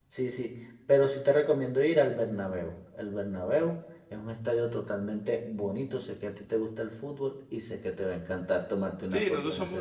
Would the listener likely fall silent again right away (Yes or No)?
No